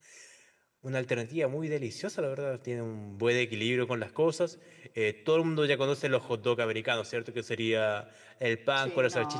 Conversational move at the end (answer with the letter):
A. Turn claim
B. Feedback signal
B